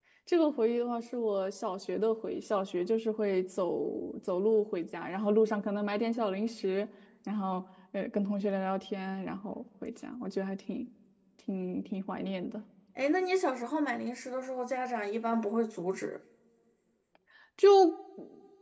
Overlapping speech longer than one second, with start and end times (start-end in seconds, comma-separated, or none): none